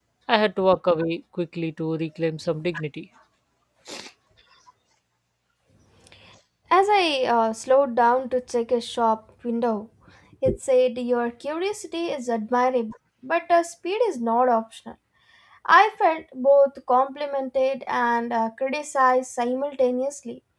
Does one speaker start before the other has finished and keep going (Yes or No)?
No